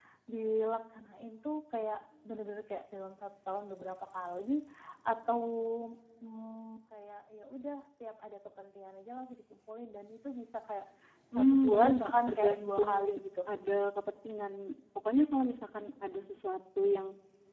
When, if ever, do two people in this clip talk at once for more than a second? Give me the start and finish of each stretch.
11.3-13.2

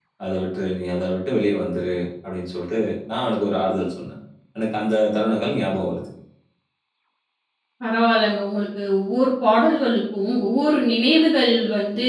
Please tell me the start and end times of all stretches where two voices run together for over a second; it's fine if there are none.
none

